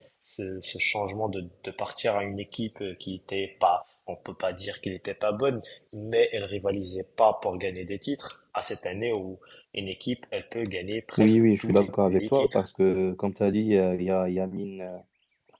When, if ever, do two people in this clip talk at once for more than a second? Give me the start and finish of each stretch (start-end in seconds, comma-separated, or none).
11.2-12.7